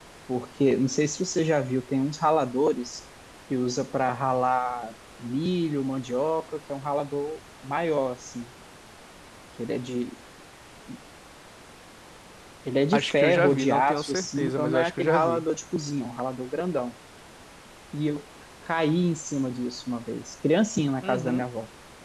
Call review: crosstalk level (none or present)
present